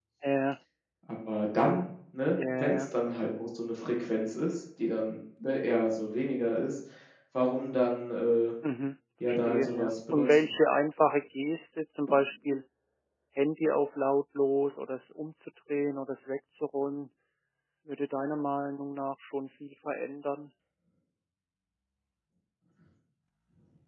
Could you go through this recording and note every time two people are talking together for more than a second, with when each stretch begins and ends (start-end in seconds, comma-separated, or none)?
9.3-10.5